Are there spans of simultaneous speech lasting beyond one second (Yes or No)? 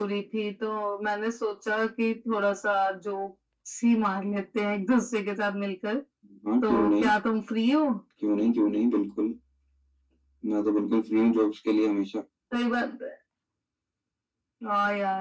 No